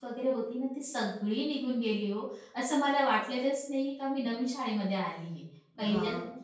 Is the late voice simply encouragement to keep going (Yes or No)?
Yes